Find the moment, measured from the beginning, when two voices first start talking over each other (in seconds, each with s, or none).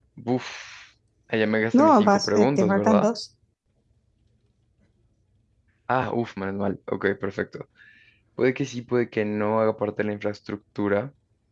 1.7 s